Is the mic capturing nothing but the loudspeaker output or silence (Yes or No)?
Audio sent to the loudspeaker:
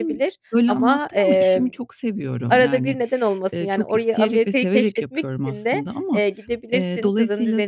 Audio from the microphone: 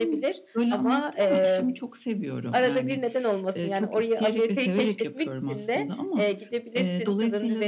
Yes